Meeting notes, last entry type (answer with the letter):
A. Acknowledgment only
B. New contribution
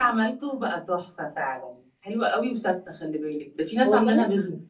B